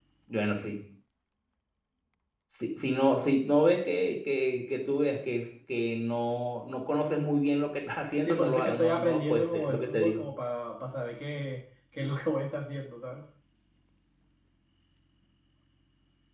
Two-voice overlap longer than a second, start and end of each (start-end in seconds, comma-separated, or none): 8.2-10.2